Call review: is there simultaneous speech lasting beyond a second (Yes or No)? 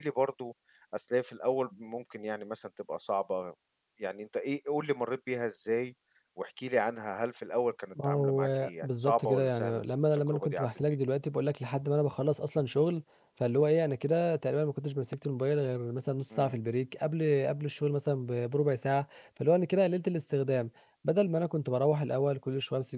Yes